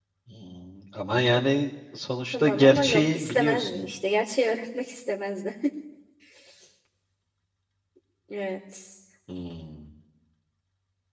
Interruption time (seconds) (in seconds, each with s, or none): 2.3 s